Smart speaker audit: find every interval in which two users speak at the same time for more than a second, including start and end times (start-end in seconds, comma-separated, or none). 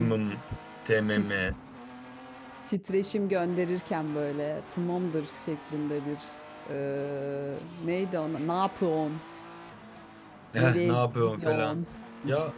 10.6-11.8